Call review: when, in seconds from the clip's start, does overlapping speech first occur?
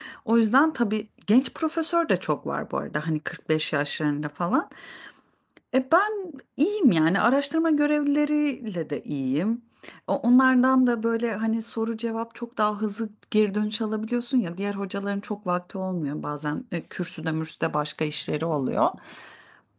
none

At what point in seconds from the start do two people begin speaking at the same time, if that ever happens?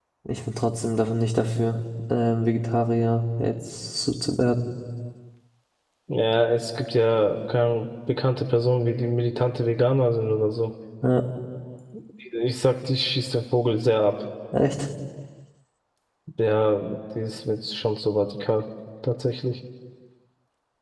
none

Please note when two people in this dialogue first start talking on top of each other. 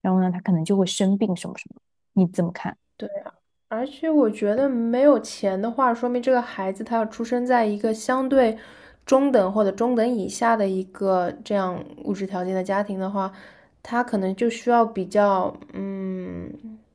none

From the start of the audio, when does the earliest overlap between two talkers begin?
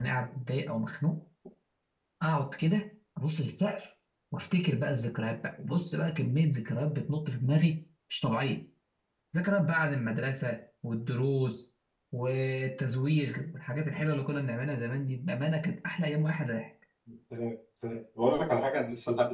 none

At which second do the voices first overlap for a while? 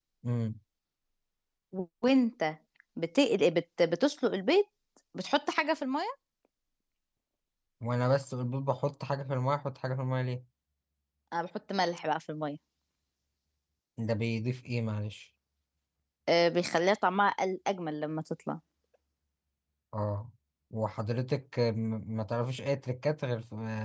none

